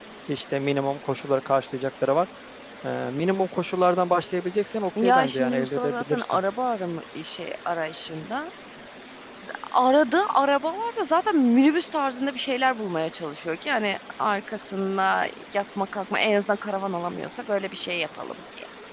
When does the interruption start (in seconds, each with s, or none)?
5.0 s